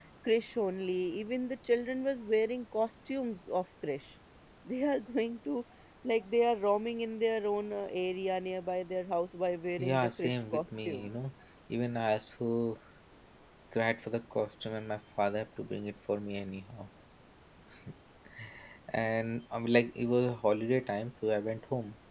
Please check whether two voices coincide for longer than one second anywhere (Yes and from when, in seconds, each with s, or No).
Yes, from 9.8 s